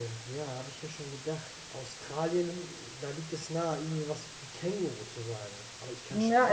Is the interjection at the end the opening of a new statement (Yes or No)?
Yes